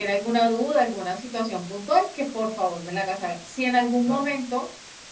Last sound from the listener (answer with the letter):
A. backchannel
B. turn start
A